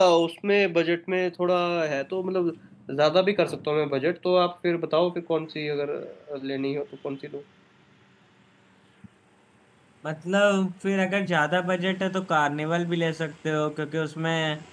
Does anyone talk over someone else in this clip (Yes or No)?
No